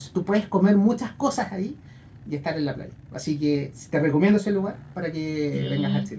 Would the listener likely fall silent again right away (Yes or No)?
No